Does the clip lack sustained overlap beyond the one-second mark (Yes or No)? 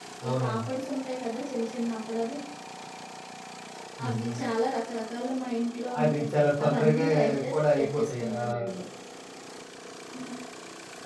No